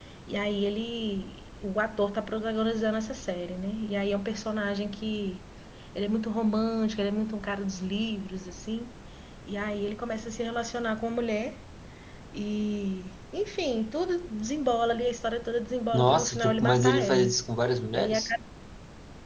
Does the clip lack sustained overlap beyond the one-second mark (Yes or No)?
No